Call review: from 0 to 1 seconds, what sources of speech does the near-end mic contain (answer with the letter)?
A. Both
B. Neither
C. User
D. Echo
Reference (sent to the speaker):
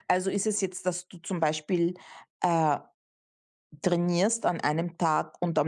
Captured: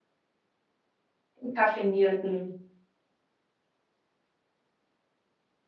B